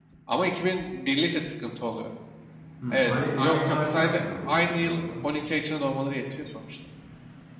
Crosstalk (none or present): present